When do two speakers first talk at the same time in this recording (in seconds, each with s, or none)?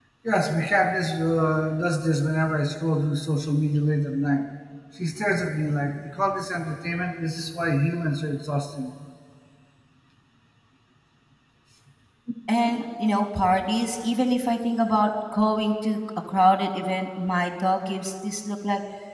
none